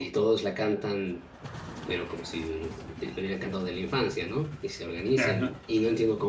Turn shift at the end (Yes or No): No